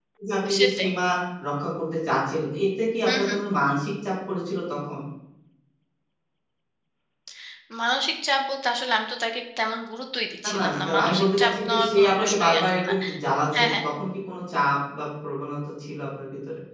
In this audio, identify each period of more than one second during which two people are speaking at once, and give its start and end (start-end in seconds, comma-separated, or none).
10.4-12.9